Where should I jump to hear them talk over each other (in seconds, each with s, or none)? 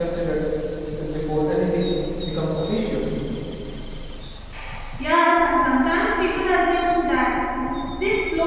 none